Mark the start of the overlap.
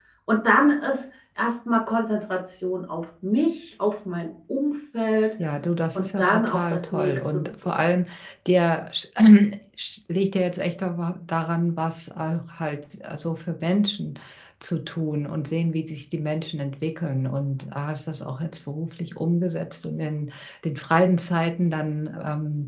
6 s

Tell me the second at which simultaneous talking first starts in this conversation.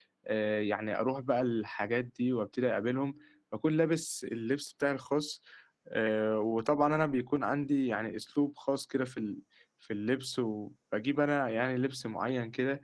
none

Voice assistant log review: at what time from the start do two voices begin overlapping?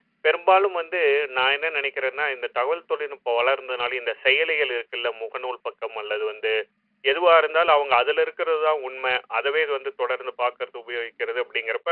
none

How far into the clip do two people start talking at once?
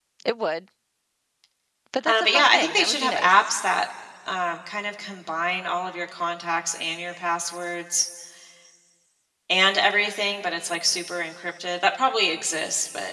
2 s

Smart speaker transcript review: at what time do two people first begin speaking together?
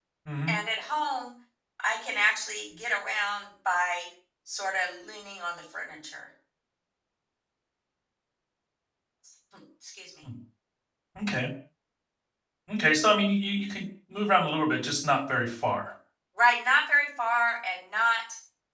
none

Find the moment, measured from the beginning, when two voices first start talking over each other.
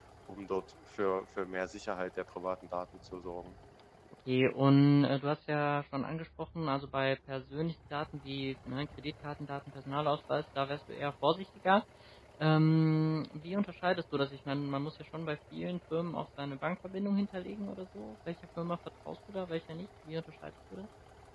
none

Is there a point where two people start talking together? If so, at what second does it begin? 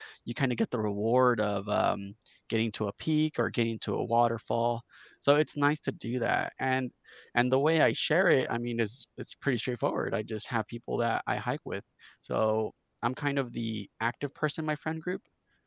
none

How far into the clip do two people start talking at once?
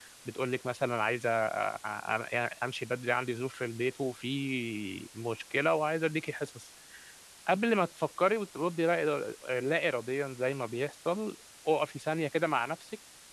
none

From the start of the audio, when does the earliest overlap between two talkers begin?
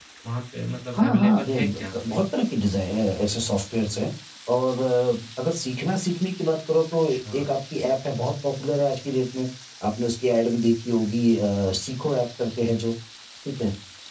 1 s

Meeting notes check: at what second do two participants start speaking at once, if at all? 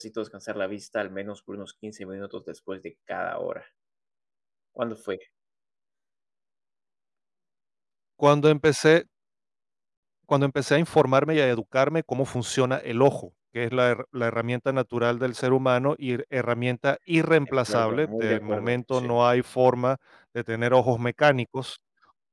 18 s

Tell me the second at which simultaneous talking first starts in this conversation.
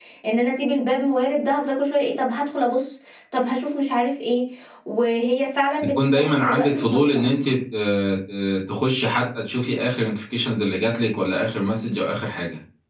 6 s

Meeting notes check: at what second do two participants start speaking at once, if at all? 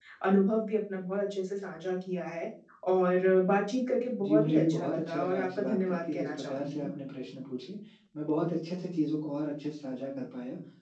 4 s

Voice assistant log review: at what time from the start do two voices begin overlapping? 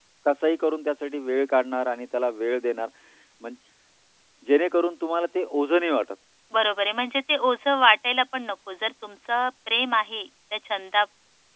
none

